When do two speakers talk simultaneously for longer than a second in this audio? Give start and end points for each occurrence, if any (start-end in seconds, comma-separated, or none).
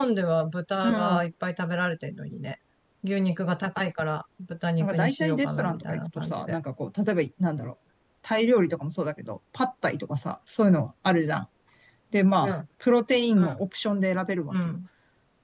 4.8-6.6